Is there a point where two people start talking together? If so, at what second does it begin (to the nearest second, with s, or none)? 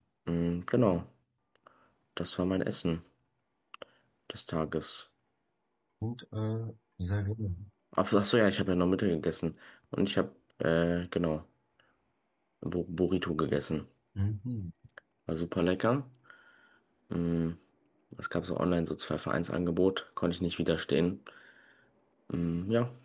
none